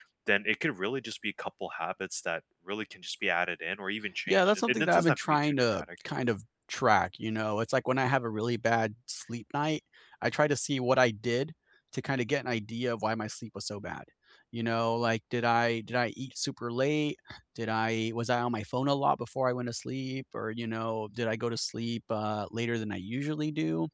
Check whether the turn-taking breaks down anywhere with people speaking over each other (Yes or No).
Yes